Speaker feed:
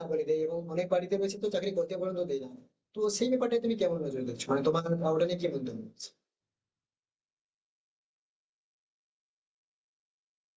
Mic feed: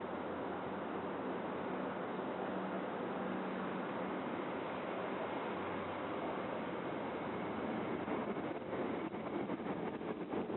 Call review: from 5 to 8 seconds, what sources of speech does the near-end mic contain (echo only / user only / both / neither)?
neither